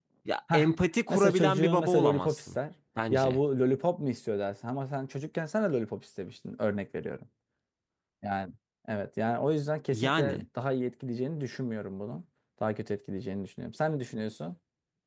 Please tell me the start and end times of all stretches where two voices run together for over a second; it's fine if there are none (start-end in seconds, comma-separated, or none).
1.1-2.6